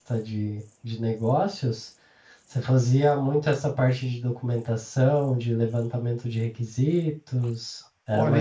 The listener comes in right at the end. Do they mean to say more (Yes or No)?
Yes